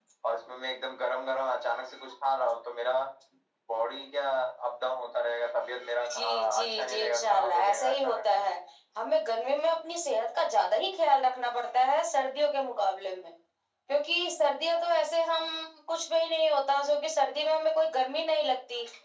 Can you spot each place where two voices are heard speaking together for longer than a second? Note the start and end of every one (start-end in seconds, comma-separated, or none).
6.1-8.0